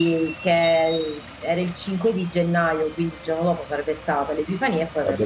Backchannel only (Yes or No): Yes